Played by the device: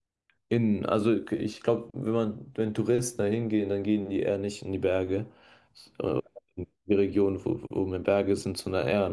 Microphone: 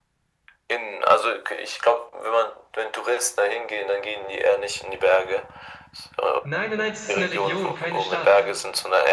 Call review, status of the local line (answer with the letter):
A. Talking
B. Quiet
A